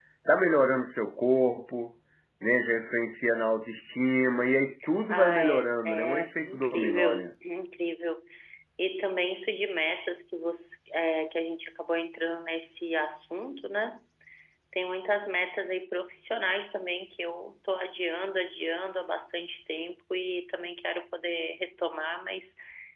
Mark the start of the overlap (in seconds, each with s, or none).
5.1 s